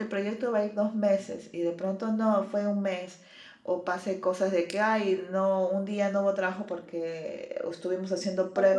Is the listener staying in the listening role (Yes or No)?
No